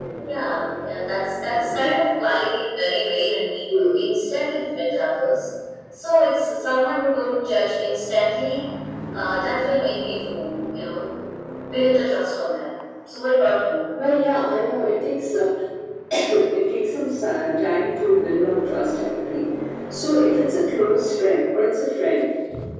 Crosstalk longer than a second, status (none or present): none